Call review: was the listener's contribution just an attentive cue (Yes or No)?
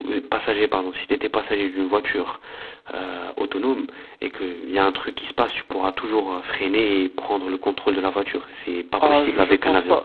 No